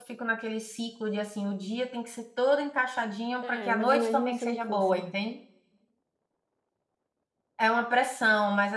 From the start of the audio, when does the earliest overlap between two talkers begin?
3.4 s

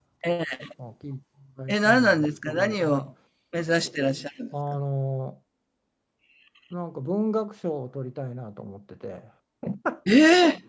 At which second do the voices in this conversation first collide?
1.7 s

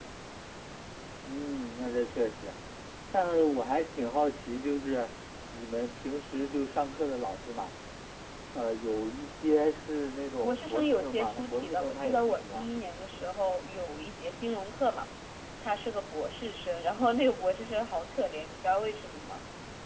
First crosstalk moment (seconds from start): 10.4 s

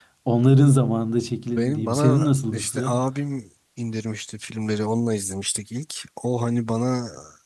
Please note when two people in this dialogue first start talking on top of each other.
1.6 s

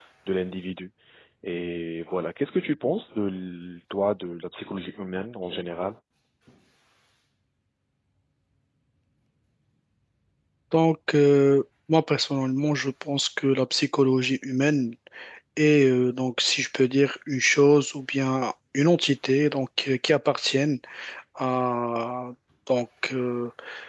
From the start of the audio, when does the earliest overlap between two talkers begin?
none

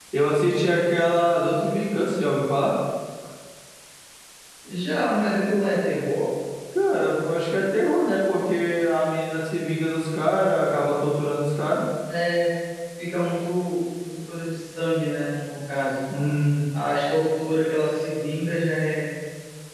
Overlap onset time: none

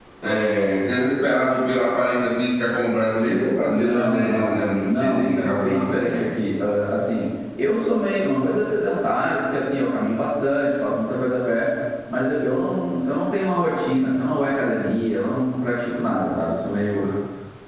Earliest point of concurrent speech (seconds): 3.6 s

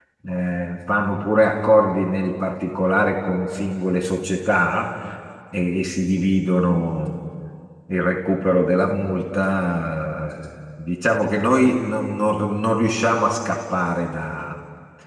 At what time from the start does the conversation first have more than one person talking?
none

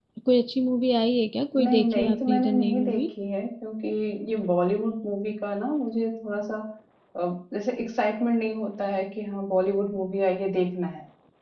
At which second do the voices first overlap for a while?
1.6 s

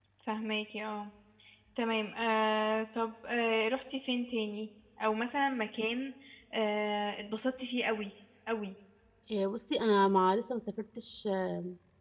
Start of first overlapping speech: none

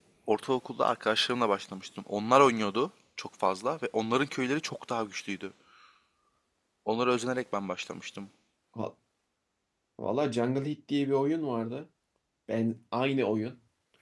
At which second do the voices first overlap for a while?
none

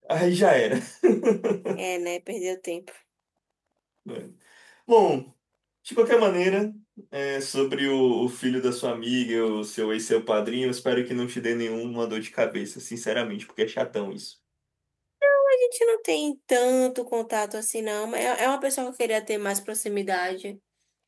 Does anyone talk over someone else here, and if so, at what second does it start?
none

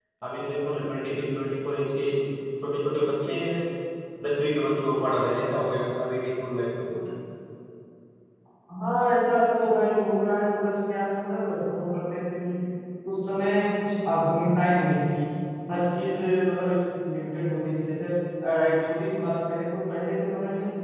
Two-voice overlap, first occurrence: none

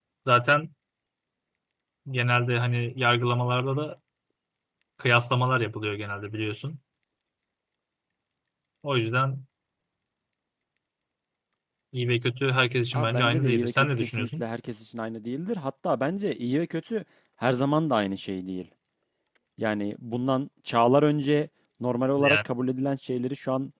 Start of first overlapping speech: 12.9 s

